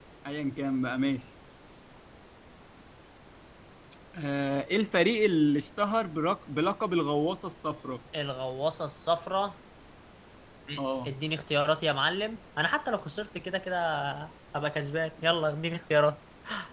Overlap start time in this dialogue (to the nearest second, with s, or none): none